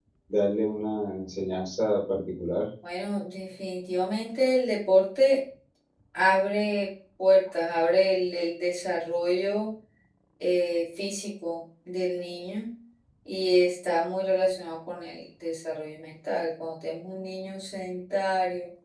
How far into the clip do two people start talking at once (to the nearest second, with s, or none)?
none